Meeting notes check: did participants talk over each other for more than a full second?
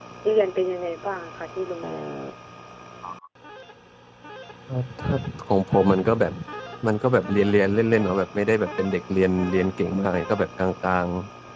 No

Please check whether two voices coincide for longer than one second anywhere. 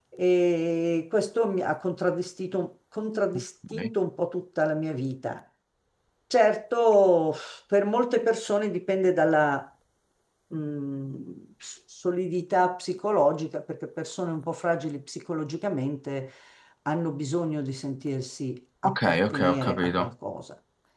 Yes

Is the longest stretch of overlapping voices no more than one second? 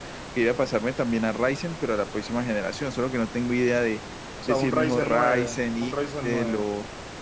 No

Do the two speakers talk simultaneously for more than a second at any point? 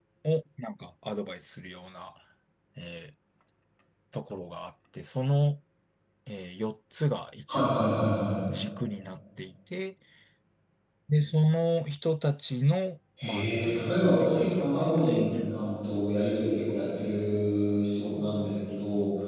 Yes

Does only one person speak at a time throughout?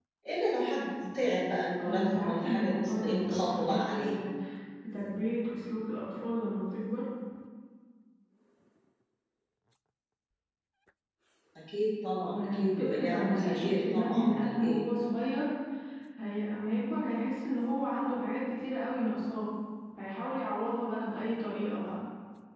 No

